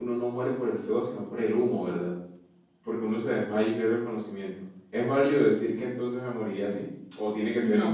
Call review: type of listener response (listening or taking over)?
taking over